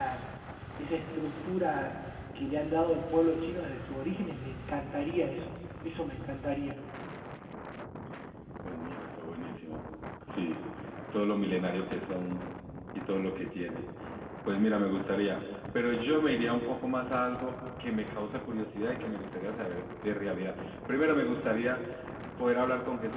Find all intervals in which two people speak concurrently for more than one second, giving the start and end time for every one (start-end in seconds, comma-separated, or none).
none